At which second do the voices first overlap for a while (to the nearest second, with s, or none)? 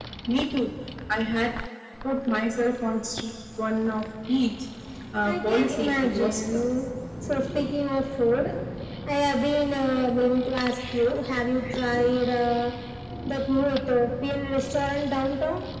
5 s